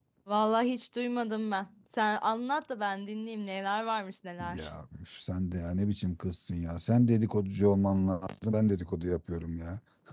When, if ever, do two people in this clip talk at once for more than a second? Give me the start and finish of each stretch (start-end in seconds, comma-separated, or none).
none